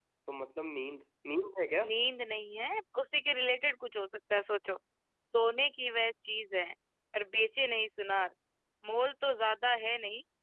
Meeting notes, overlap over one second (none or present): none